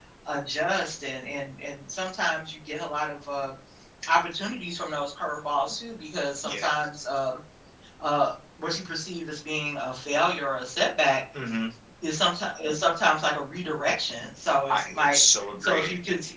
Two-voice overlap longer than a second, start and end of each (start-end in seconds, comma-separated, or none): none